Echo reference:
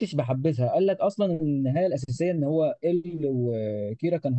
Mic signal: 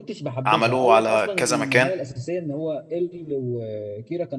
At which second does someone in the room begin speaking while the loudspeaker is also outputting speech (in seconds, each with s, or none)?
0.5 s